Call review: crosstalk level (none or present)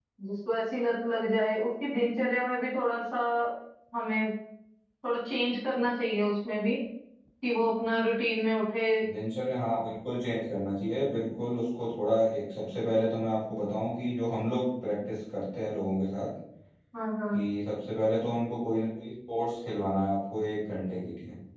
none